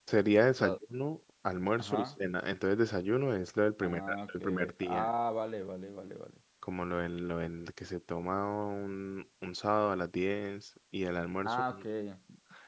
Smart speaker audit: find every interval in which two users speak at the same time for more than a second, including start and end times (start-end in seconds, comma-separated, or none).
3.8-5.1